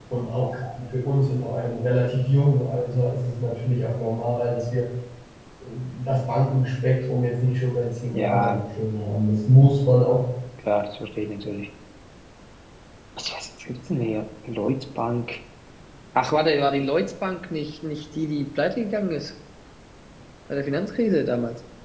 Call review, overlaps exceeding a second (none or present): none